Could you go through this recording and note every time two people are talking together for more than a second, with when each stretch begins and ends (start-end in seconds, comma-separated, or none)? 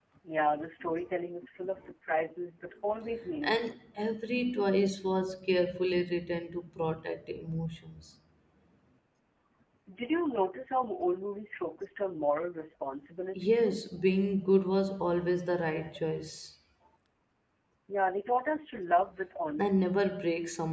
none